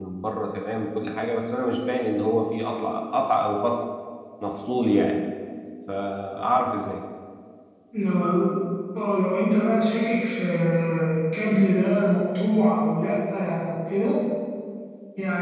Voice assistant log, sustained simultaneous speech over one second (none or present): none